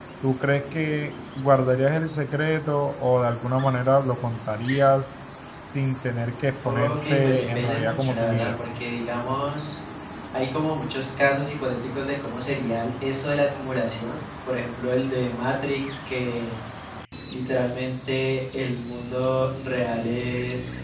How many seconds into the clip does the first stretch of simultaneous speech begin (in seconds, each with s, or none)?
6.6 s